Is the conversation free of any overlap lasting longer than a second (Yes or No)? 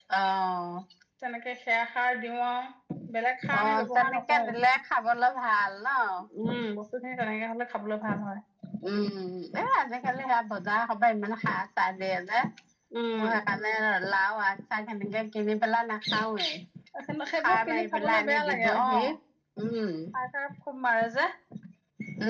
No